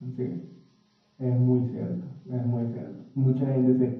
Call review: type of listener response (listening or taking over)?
listening